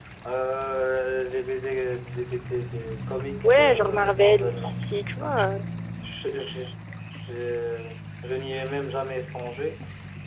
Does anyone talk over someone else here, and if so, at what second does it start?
3.4 s

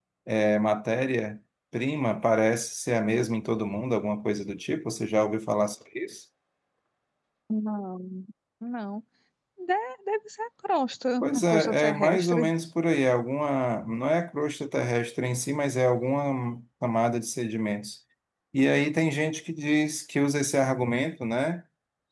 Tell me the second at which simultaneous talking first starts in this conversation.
11.2 s

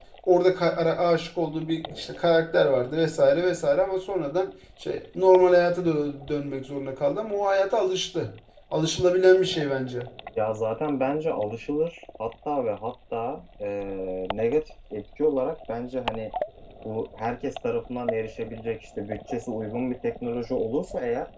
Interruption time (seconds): none

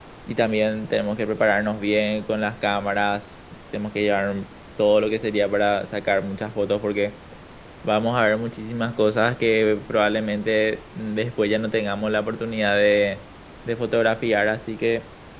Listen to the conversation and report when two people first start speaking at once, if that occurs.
none

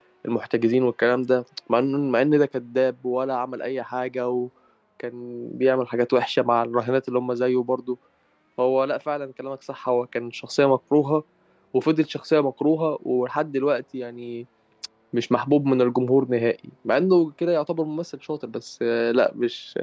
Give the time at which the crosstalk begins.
none

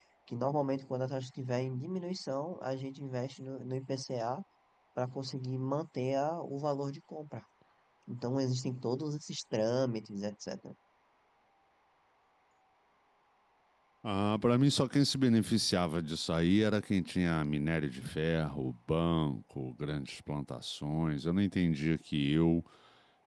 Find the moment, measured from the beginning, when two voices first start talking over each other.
none

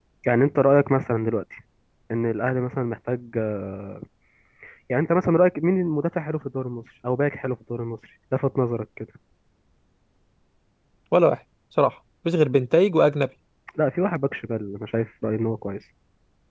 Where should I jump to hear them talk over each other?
none

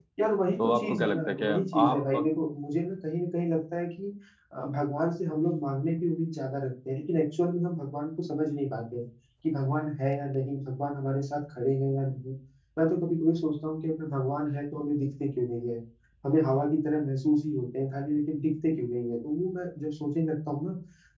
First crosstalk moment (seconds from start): 0.6 s

